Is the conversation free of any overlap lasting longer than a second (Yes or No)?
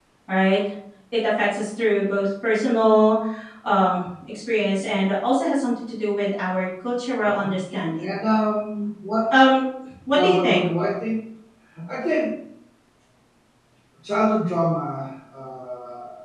Yes